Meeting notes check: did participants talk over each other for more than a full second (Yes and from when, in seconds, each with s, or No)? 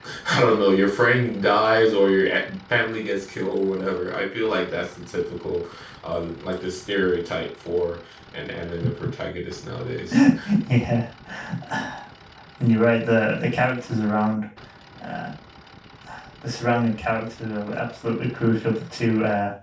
No